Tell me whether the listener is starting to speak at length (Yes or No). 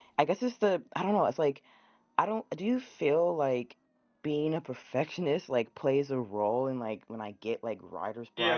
Yes